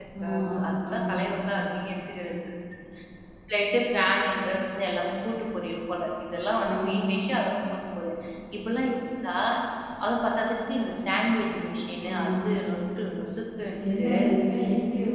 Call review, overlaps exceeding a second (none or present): none